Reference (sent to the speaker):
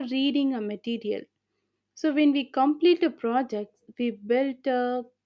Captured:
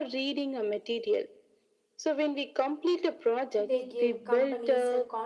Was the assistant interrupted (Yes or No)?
Yes